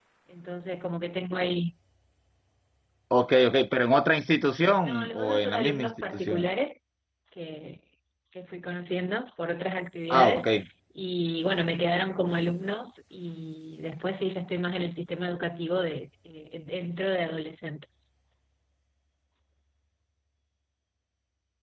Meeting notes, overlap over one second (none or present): present